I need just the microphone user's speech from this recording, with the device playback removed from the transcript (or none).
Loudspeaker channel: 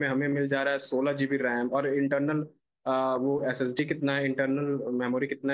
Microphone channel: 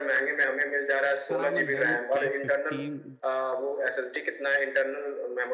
उसका नाम है डेल ए फिफ्टीन